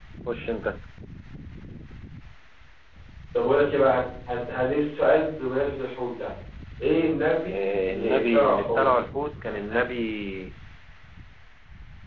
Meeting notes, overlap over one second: present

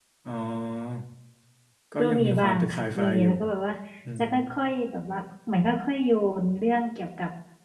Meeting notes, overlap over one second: present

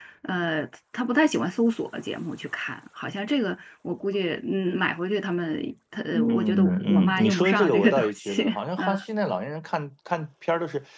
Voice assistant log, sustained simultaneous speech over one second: present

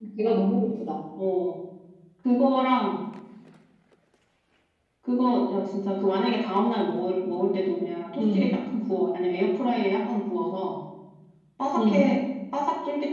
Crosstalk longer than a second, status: none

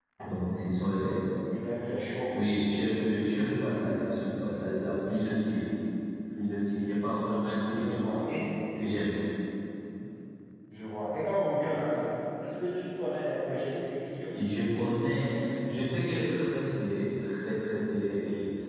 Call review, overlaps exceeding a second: none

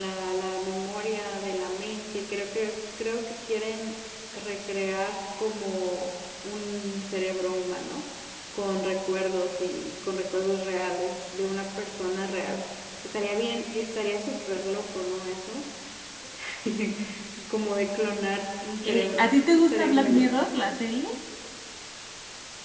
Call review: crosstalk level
present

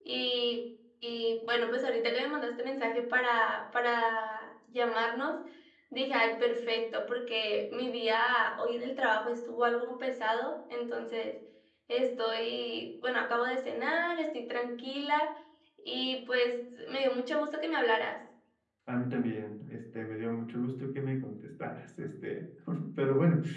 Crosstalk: none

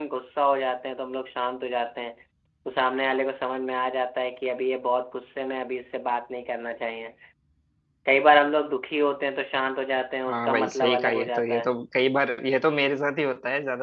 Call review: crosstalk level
present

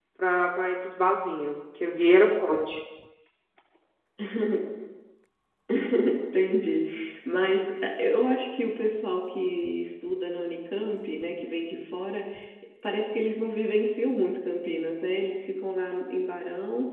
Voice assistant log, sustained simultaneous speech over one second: none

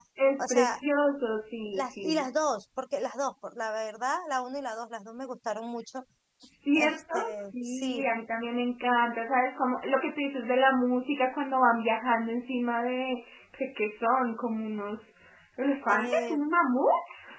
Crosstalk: present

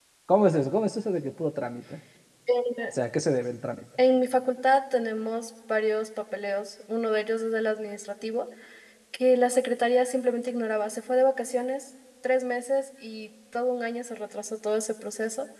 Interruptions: none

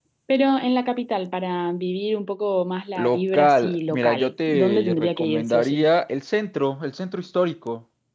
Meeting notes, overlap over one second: present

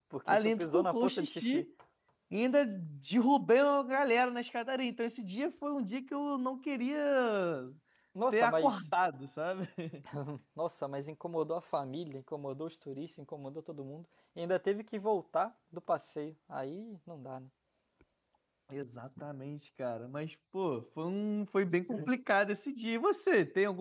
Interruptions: present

